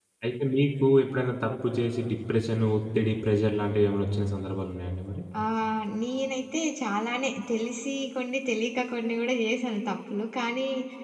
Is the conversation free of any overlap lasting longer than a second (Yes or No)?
Yes